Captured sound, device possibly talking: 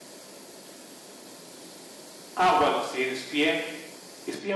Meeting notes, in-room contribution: present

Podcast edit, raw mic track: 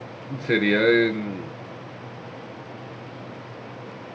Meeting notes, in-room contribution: present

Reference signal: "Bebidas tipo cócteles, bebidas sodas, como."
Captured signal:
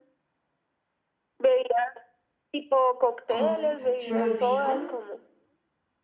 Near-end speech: present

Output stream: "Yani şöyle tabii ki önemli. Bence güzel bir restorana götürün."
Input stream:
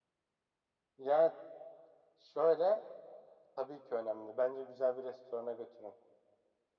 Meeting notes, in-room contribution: none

